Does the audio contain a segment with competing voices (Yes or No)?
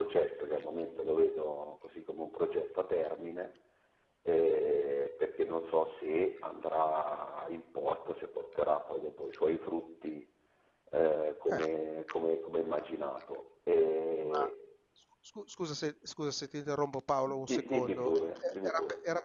Yes